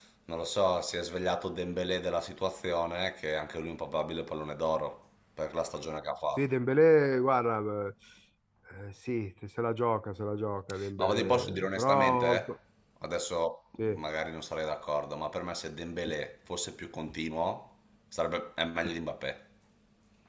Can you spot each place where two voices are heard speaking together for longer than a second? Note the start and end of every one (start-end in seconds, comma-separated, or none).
11.0-12.4